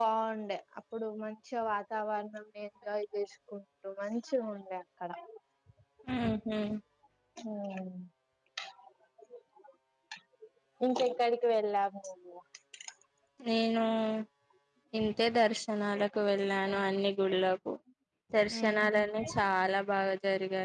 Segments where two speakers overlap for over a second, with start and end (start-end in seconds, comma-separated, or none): none